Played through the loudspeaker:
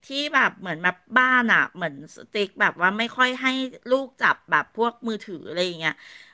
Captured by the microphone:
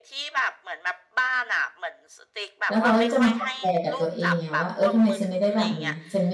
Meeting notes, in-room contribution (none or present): present